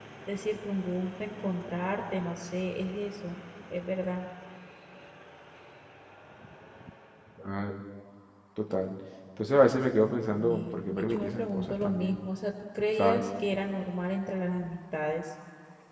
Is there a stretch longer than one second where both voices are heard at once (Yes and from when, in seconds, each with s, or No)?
Yes, from 10.3 s